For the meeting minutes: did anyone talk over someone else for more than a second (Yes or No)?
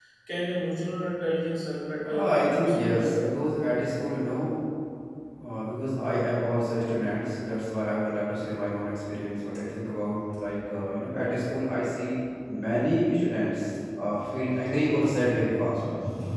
Yes